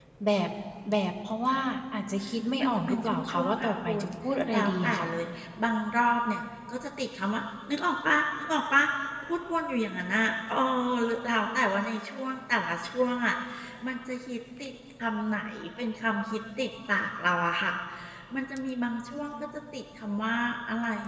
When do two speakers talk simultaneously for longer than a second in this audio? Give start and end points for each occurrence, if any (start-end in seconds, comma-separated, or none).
2.6-4.1